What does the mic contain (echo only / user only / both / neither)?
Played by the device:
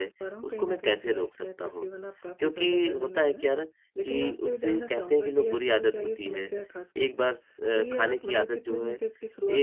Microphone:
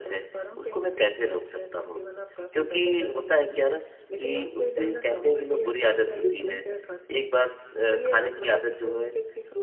both